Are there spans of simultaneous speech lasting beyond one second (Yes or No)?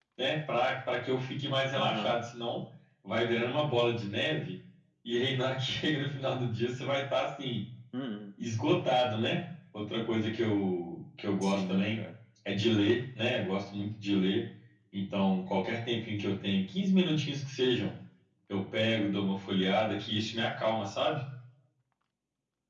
No